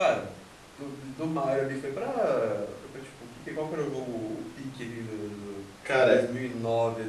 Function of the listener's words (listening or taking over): listening